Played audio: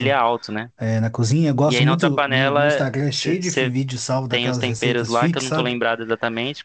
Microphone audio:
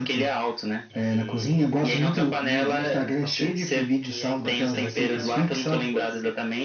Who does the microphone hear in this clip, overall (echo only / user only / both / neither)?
both